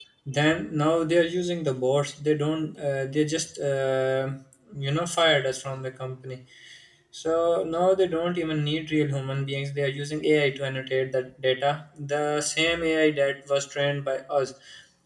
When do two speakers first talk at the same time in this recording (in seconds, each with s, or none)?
none